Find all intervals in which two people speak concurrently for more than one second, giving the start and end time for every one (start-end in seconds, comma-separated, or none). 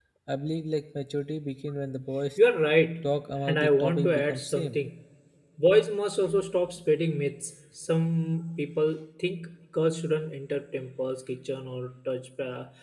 3.5-4.8